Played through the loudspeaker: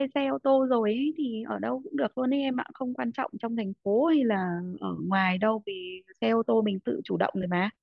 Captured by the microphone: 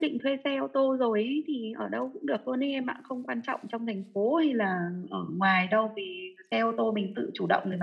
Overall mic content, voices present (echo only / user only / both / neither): echo only